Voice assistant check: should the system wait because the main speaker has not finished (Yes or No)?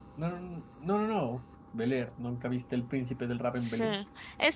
No